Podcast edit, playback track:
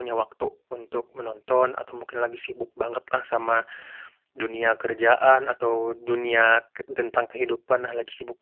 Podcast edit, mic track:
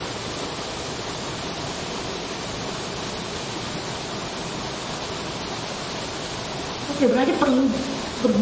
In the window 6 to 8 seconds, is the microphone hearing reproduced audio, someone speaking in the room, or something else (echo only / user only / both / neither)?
user only